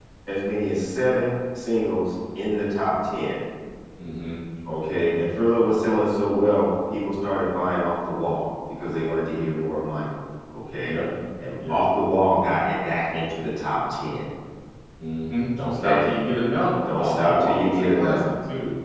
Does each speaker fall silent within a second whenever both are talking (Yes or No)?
No